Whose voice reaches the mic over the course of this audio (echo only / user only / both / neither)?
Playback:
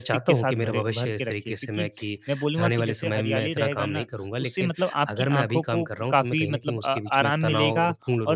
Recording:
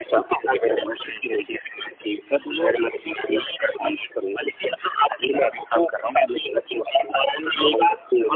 echo only